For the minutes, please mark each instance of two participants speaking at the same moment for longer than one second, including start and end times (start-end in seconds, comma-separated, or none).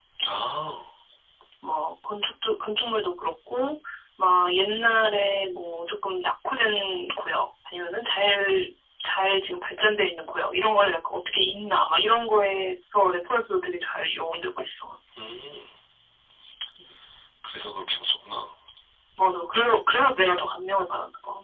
none